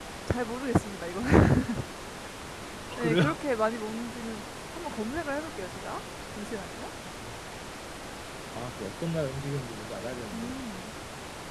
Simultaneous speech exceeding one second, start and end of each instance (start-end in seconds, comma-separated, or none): none